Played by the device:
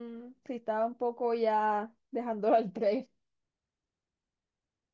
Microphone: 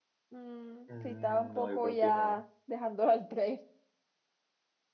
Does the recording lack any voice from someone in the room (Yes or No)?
No